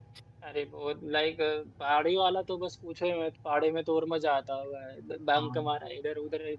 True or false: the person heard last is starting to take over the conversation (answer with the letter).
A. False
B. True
A